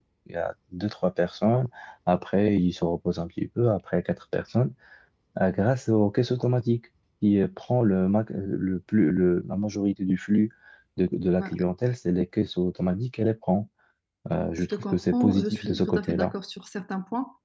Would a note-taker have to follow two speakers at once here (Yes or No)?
Yes